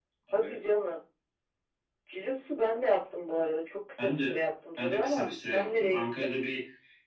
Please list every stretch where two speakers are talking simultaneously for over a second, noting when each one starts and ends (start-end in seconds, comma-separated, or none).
4.8-6.3